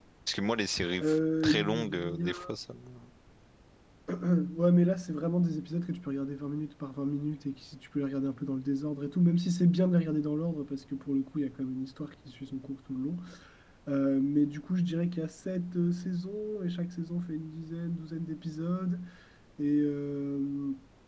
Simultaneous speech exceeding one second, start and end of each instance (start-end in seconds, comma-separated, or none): 1.0-2.3